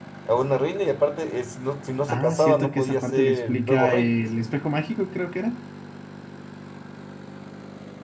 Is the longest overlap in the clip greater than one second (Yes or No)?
Yes